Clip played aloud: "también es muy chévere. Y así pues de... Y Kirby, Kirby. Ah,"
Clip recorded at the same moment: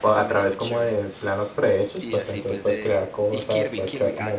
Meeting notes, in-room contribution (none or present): present